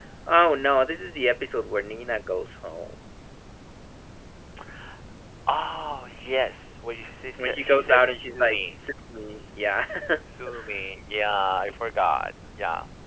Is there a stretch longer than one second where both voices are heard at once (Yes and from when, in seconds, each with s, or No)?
Yes, from 7.4 s